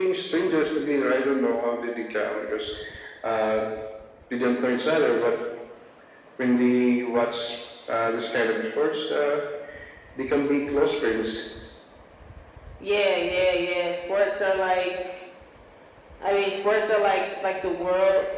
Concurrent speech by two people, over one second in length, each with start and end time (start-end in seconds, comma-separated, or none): none